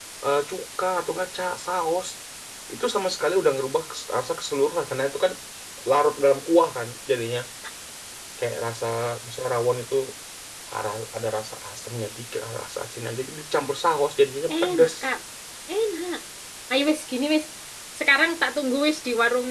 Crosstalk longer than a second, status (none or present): none